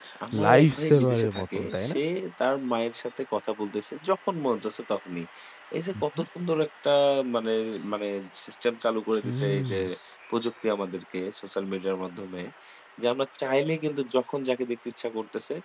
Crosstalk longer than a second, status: present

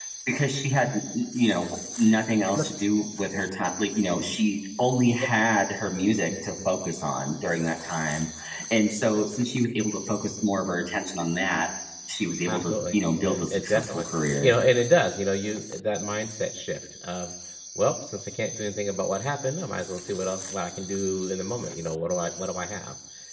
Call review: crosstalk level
present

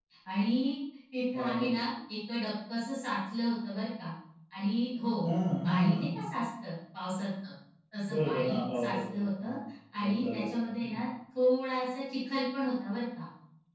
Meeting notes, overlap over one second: present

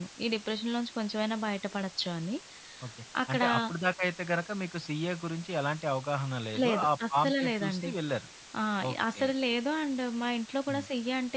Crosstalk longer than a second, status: present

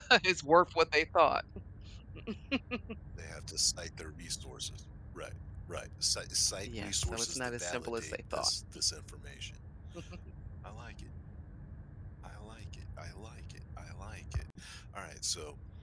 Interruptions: present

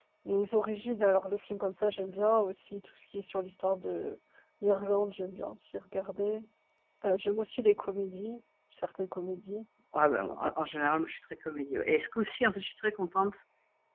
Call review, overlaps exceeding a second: none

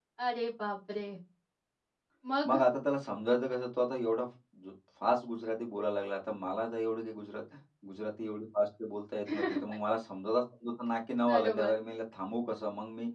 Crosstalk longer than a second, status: none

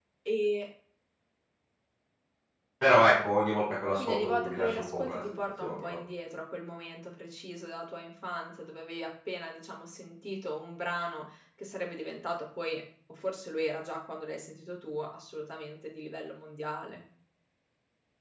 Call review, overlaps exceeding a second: present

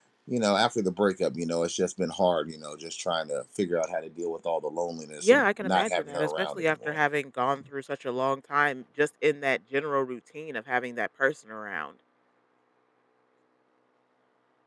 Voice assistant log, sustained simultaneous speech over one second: present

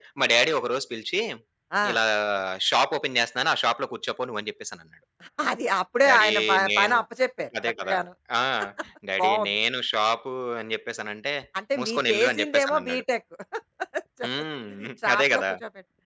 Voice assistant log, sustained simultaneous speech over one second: present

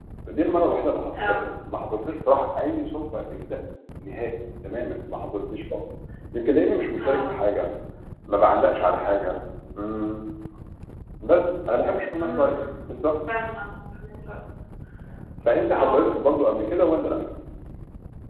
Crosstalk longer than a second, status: none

